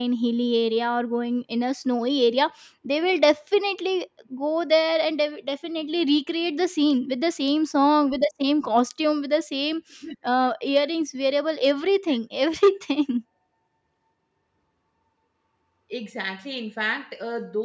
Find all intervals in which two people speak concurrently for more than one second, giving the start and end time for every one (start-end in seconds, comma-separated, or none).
none